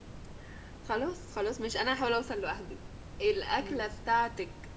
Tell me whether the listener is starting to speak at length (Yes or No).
No